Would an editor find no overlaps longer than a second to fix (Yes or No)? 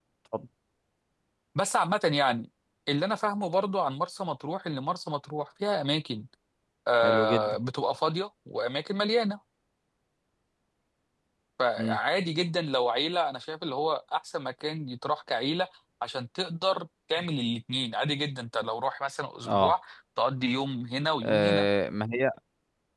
Yes